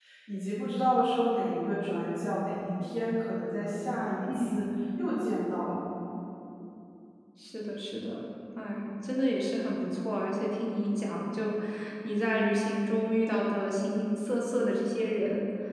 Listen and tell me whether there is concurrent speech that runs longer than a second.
No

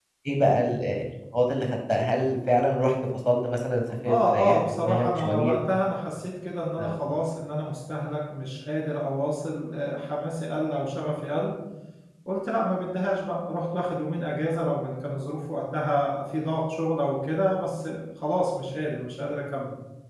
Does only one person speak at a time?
No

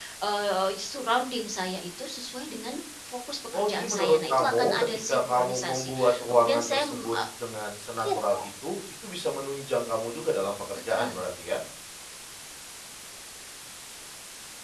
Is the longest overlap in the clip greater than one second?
Yes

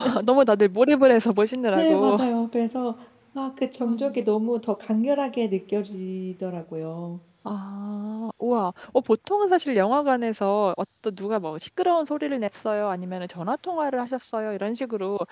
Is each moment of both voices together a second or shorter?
Yes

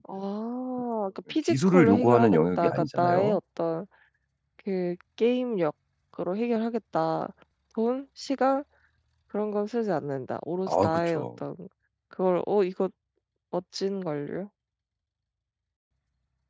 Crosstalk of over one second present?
Yes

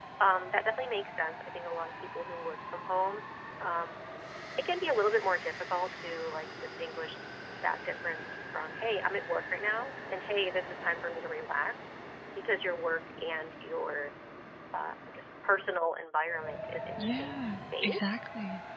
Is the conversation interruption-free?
No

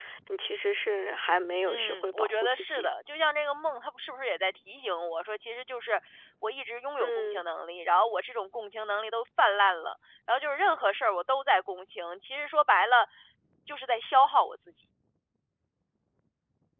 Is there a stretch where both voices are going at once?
Yes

